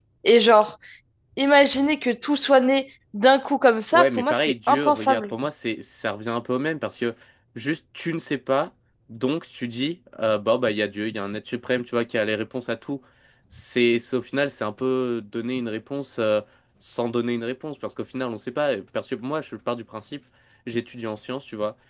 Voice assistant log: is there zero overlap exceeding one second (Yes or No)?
No